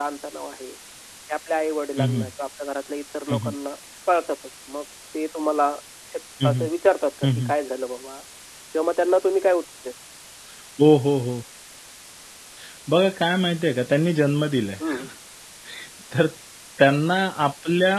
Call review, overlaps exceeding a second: none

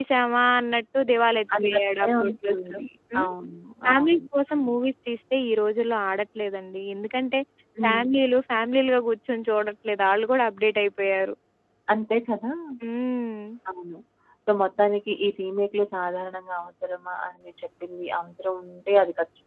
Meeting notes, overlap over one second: present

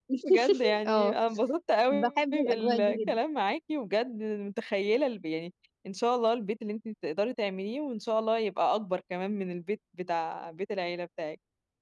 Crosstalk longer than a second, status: present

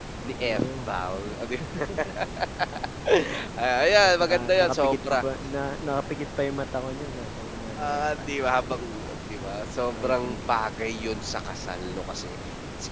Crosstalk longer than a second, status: present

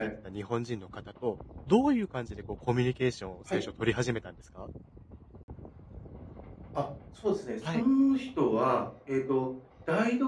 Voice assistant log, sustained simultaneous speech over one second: none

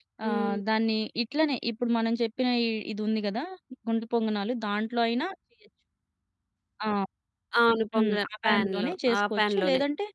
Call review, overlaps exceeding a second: present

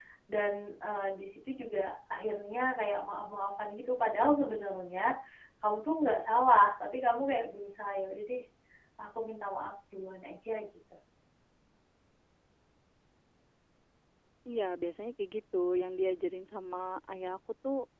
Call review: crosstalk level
none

